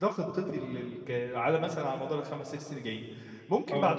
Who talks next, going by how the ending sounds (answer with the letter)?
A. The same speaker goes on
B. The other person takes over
A